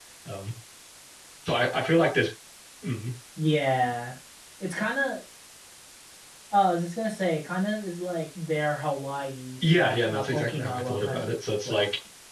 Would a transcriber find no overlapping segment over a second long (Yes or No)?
No